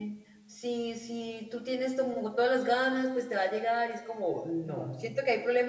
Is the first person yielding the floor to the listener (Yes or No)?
No